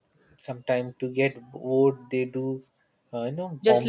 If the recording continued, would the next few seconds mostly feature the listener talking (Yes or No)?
Yes